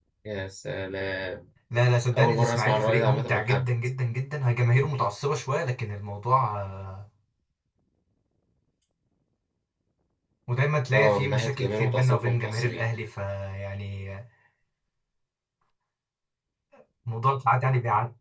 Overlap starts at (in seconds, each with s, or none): 2.2 s